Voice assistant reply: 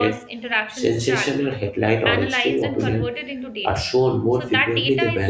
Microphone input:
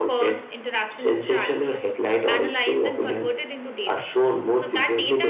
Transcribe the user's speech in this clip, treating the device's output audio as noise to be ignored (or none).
none